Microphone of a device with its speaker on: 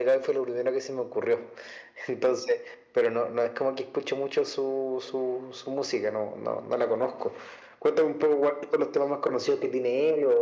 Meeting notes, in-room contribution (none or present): none